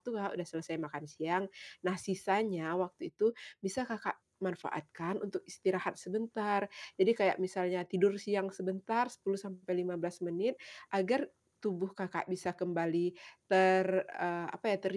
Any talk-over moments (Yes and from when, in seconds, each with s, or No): No